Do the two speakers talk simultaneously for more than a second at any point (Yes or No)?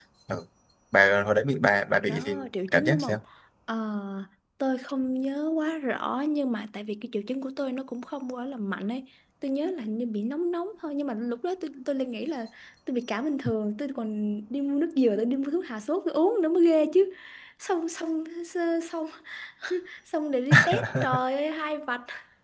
Yes